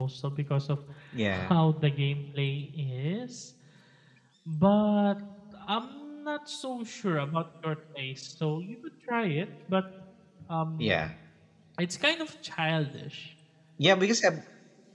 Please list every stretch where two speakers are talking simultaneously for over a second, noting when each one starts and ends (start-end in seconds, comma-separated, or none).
none